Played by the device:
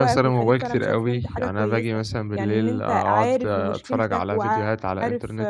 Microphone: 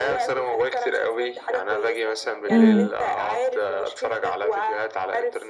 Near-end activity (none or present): present